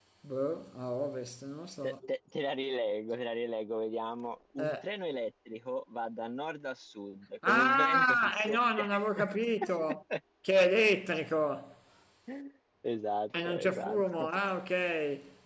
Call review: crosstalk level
present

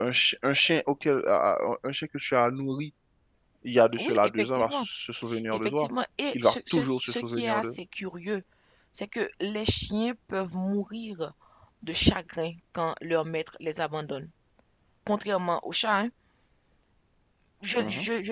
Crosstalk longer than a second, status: present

